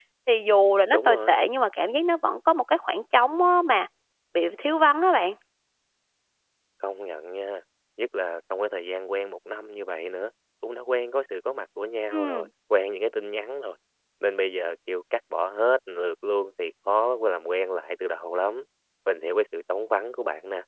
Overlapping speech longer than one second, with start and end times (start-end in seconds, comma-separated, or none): none